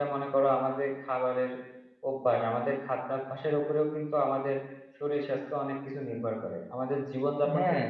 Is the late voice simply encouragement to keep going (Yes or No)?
Yes